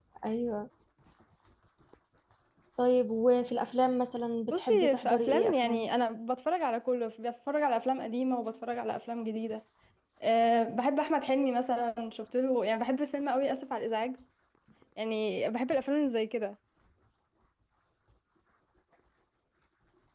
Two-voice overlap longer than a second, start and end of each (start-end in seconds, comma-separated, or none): 4.5-5.9